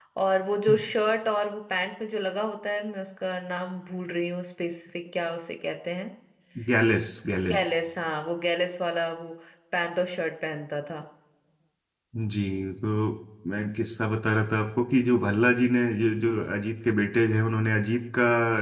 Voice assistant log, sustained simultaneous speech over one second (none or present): none